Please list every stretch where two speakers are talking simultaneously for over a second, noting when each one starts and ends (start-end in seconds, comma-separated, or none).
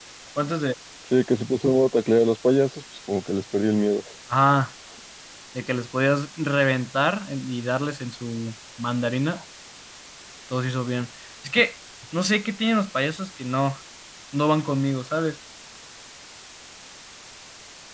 none